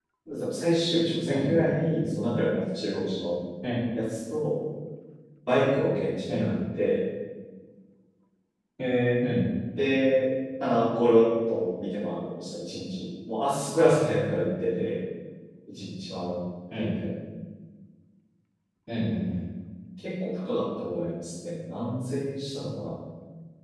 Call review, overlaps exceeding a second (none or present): none